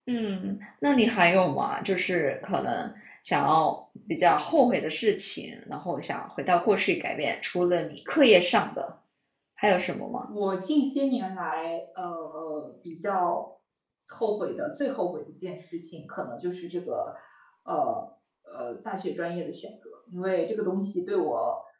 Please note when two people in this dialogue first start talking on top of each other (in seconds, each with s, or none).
none